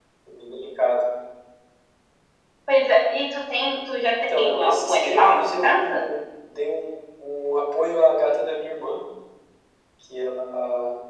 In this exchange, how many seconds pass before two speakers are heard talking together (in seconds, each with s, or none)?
4.3 s